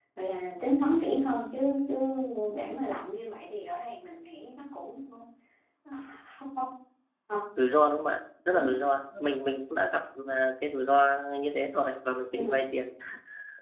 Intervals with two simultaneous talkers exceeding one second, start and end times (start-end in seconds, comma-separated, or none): none